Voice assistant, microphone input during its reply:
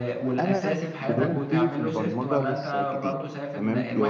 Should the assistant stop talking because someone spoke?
Yes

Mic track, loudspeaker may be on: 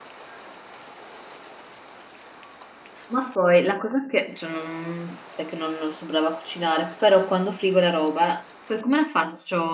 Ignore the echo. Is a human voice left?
Yes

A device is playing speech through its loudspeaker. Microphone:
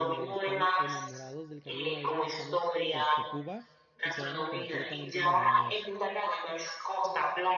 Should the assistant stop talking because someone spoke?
Yes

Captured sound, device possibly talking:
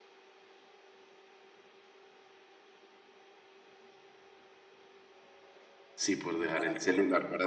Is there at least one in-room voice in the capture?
Yes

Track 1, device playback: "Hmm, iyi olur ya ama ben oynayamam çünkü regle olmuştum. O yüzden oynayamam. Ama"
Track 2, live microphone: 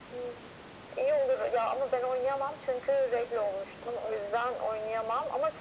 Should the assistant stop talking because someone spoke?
No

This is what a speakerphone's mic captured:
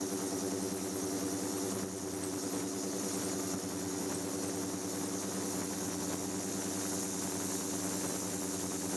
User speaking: No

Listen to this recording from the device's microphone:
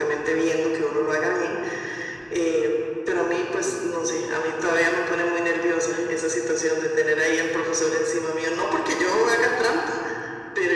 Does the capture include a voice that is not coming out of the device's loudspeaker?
No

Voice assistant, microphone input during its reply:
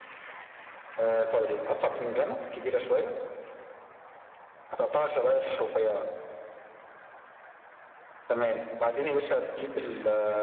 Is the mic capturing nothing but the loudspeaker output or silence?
Yes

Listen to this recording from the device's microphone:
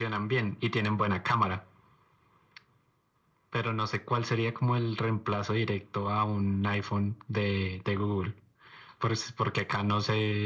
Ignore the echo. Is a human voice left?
No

